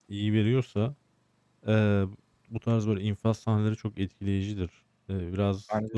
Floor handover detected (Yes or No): No